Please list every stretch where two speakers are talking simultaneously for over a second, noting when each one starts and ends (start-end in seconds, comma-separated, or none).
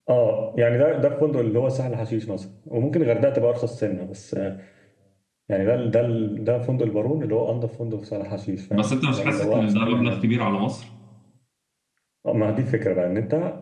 8.7-10.3